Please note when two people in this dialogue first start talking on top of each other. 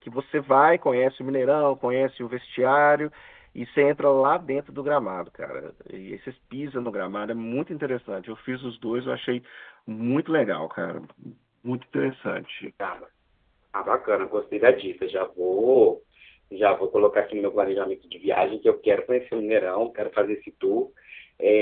none

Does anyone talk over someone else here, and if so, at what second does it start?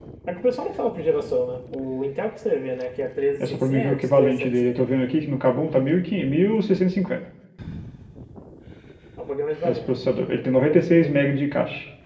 3 s

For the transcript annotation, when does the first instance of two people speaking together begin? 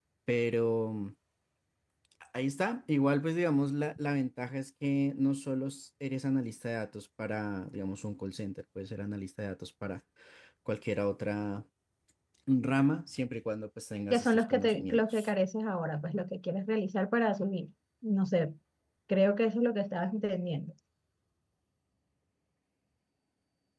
14 s

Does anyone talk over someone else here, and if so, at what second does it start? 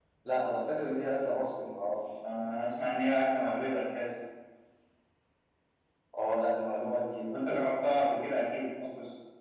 none

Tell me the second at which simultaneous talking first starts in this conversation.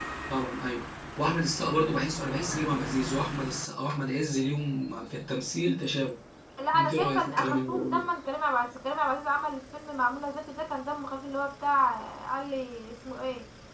7 s

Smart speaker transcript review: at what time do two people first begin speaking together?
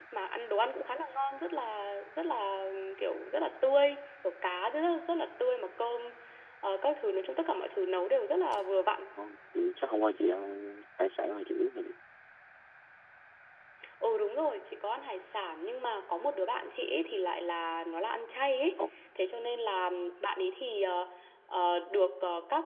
none

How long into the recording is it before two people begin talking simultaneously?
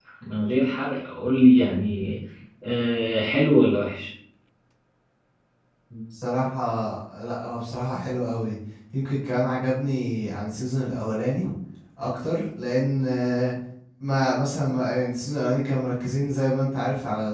none

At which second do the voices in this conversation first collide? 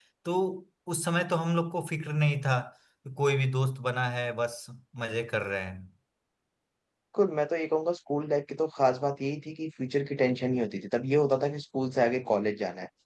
none

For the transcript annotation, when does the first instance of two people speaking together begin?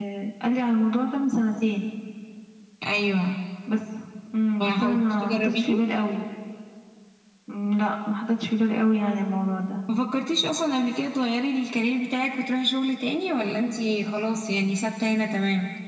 5 s

